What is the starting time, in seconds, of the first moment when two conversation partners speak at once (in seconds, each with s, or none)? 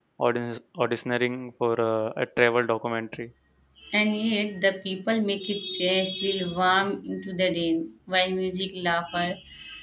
none